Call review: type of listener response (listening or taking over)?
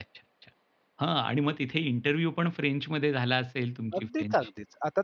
taking over